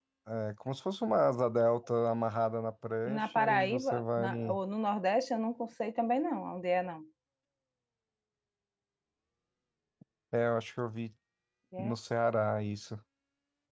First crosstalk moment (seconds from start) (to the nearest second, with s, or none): 3 s